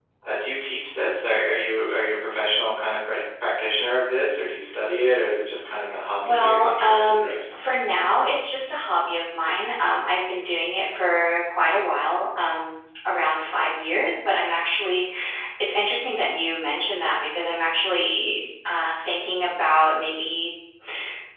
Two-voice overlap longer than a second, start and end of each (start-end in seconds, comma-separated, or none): 6.2-7.6